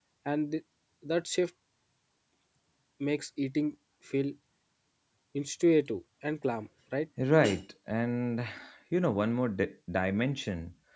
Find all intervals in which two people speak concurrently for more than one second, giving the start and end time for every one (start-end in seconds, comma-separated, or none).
none